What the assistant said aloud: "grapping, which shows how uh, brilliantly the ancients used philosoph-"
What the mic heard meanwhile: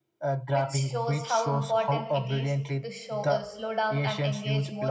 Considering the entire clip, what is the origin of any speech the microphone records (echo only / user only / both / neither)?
both